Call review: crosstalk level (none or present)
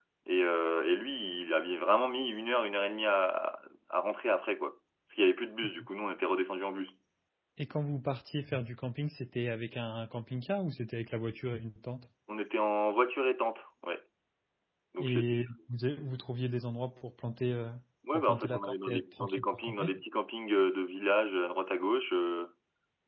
present